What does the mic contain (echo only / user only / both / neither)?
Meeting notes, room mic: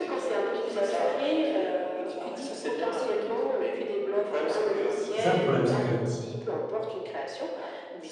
both